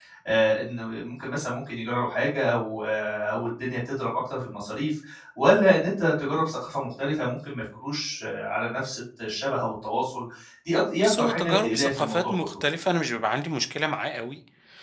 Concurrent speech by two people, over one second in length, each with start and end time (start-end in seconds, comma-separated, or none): 11.0-12.5